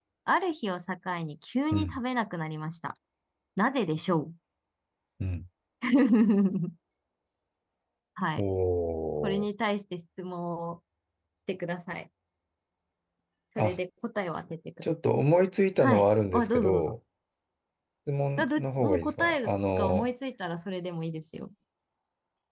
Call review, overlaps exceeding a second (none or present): present